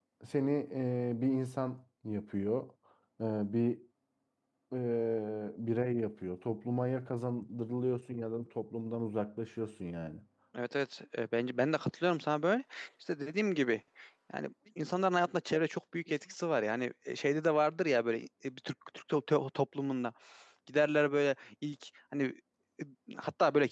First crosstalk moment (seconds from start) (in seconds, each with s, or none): none